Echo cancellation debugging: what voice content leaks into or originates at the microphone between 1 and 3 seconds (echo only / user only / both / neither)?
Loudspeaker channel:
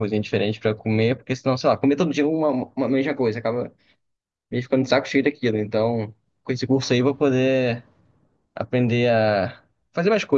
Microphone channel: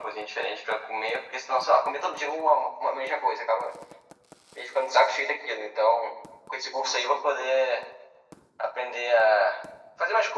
echo only